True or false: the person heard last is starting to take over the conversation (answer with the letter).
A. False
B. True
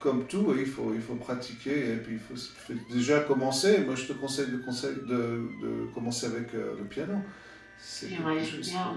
B